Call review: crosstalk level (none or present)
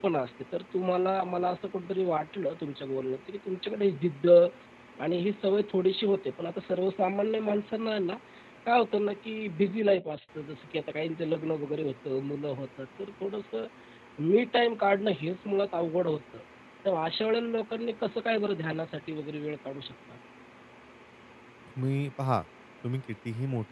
none